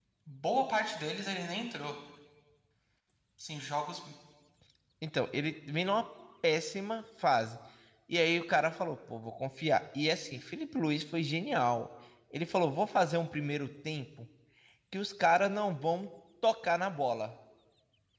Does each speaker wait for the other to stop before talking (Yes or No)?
Yes